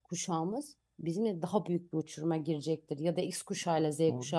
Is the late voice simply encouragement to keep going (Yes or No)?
No